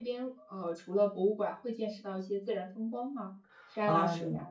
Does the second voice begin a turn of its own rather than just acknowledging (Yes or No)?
Yes